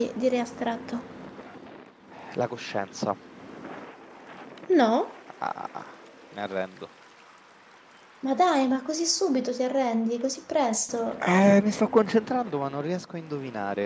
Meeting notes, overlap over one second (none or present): none